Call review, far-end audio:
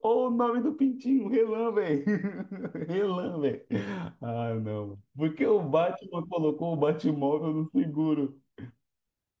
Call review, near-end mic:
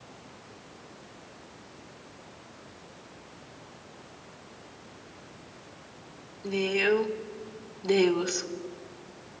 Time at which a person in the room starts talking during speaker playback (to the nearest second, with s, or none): 6 s